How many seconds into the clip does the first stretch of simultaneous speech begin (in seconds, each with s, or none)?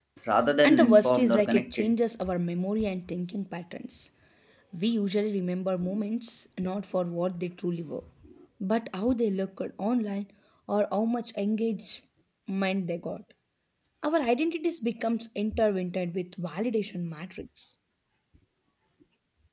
0.6 s